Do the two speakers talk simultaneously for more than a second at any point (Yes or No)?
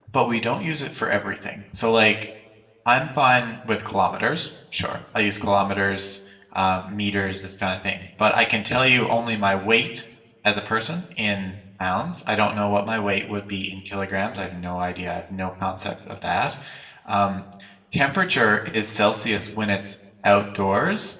No